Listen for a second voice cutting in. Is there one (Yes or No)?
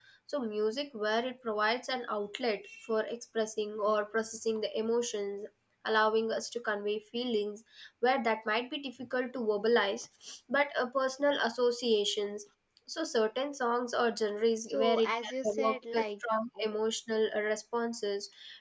Yes